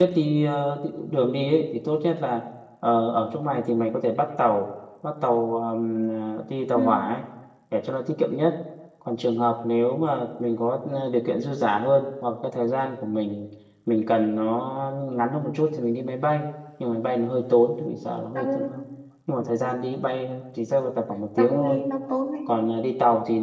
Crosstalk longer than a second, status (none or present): none